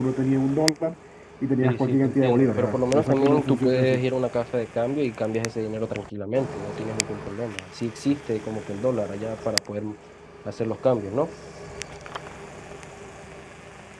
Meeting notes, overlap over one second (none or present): present